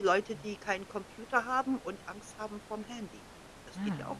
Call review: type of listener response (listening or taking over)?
taking over